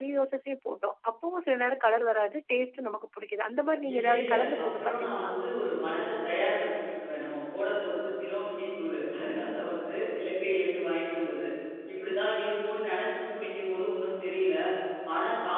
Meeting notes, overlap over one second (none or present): present